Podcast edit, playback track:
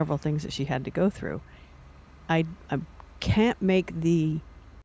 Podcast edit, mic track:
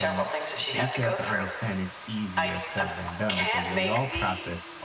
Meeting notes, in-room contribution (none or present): present